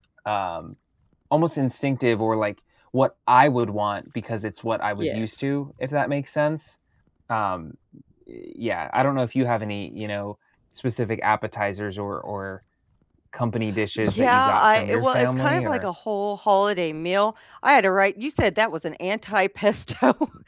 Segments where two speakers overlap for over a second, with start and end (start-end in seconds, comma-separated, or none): 14.0-15.9